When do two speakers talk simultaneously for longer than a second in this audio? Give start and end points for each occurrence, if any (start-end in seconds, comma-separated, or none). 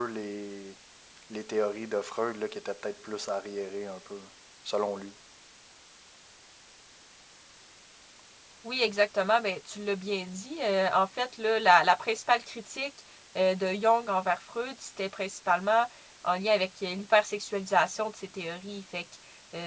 none